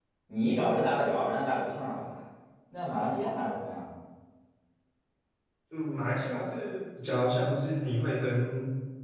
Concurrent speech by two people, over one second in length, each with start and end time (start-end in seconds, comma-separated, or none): none